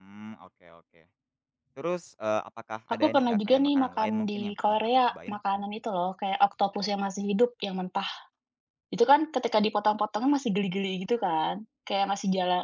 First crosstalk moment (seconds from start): 2.9 s

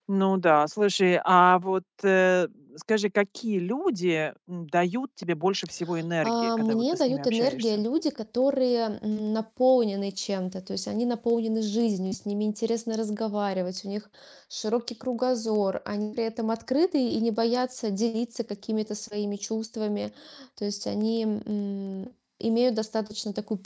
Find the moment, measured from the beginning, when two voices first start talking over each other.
6.2 s

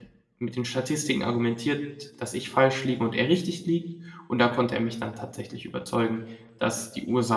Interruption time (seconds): none

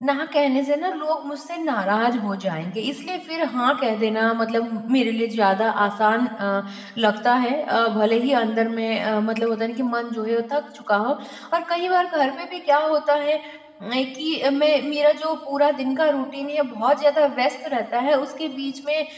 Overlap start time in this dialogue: none

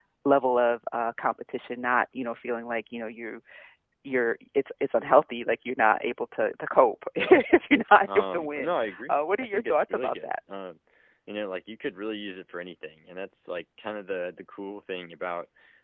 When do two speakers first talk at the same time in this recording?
8.0 s

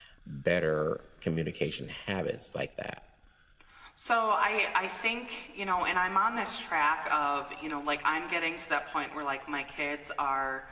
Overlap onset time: none

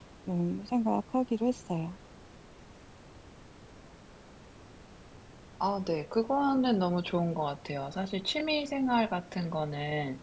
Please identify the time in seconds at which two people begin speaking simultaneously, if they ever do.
none

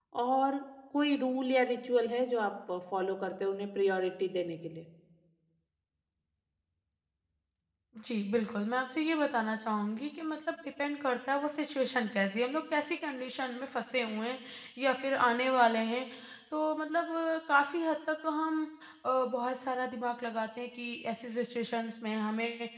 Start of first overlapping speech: none

